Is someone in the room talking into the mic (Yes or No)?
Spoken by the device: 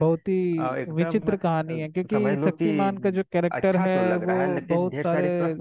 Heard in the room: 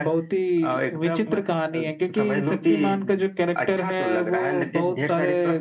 No